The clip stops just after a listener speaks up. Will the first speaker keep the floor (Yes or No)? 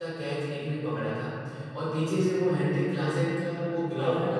No